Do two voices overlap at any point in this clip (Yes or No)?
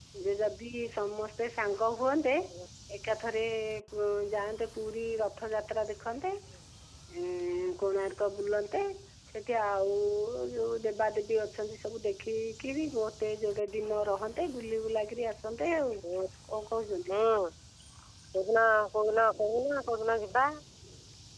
No